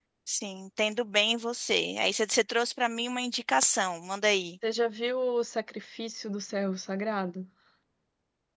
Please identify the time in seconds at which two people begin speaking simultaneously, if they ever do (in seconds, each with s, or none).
none